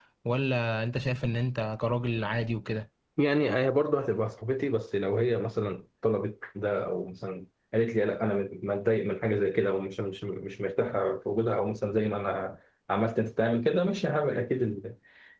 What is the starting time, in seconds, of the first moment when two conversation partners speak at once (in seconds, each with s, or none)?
none